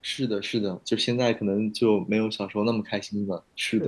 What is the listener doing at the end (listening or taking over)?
taking over